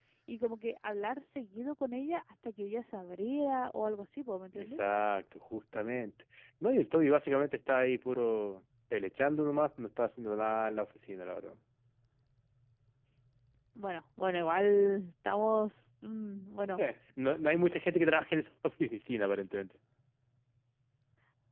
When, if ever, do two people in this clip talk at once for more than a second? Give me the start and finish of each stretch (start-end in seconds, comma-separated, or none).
none